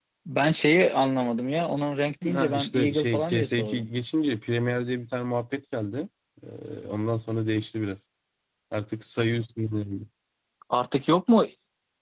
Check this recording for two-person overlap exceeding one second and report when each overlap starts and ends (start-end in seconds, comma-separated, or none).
2.3-3.9